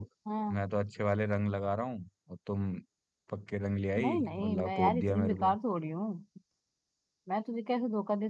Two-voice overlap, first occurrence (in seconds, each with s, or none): 4.0 s